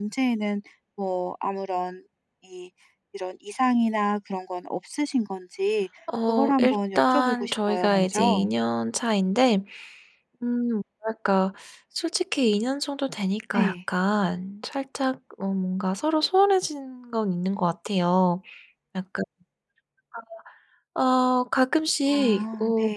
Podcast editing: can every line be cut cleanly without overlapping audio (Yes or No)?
No